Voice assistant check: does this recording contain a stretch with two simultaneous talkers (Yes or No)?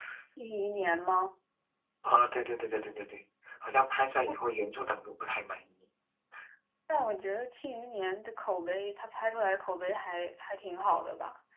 No